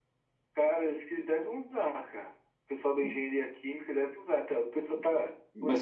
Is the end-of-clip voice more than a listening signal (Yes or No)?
Yes